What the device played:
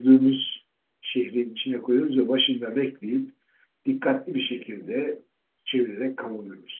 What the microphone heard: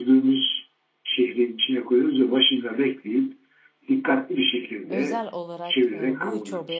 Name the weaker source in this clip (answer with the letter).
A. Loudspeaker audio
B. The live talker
B